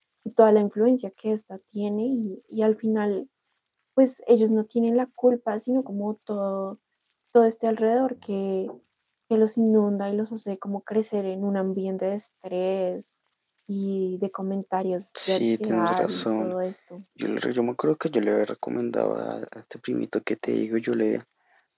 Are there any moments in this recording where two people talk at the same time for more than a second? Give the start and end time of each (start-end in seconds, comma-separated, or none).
15.3-16.5